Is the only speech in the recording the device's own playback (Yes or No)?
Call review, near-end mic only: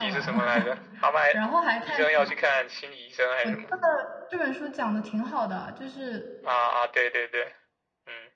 No